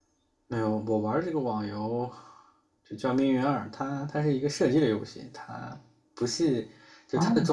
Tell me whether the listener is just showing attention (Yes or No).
Yes